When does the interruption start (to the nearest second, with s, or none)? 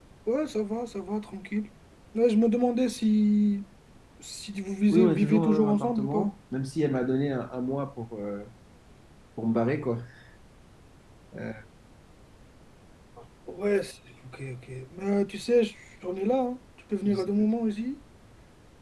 5 s